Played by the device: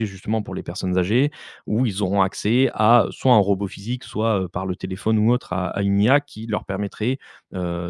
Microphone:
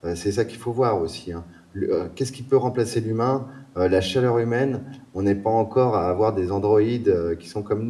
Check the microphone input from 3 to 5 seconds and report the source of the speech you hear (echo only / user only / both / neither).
user only